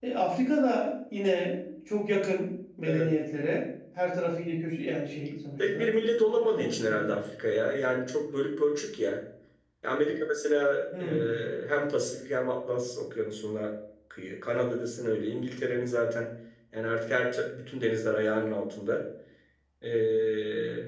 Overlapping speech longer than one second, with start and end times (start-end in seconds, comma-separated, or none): 5.7-7.1